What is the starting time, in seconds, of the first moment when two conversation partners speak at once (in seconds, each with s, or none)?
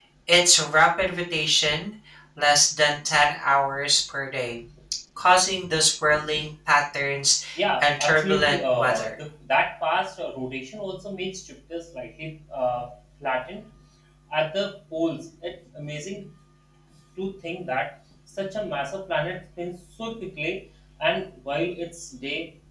7.8 s